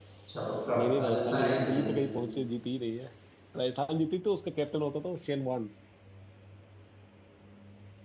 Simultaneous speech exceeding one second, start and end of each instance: 0.7-1.9

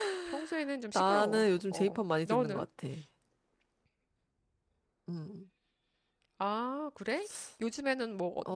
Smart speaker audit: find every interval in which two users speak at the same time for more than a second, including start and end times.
0.9-2.6

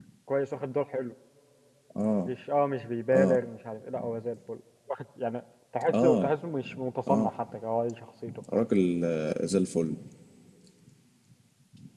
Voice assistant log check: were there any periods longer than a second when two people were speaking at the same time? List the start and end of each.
none

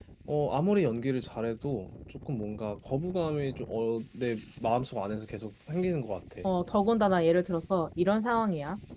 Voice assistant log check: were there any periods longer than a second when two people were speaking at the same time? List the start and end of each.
none

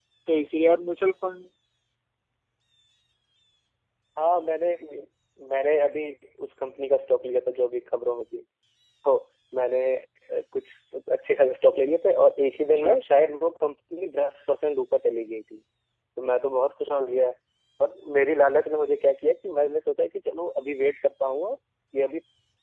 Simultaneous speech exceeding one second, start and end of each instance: none

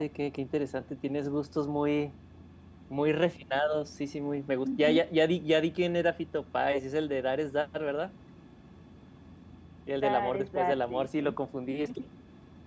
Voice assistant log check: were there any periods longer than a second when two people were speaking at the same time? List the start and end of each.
10.0-11.4

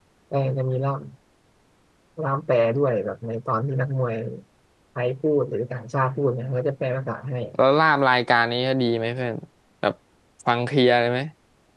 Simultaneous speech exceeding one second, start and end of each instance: none

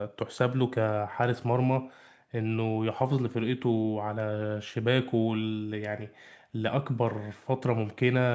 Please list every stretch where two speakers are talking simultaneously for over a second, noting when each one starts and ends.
none

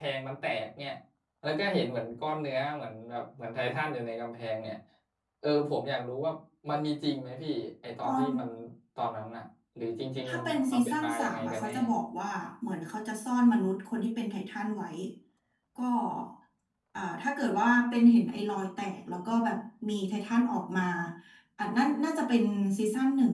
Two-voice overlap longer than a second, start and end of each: 10.2-11.7

